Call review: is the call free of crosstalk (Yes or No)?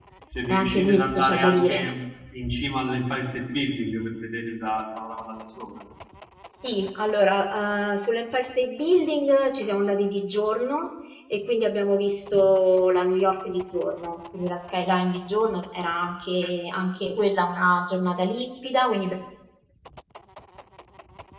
No